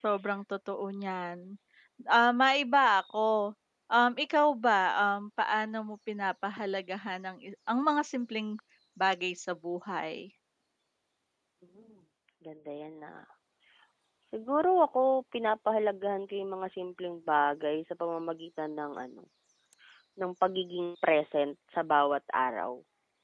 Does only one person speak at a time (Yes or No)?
Yes